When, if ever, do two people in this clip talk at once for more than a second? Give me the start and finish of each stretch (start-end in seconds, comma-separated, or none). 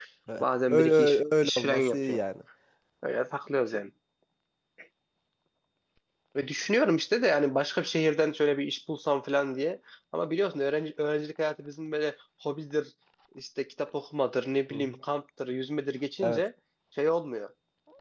0.7-2.2